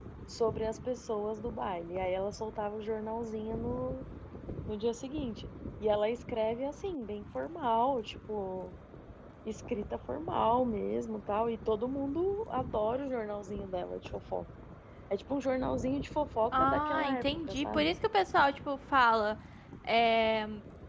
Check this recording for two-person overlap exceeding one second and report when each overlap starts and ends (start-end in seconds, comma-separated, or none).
16.5-17.9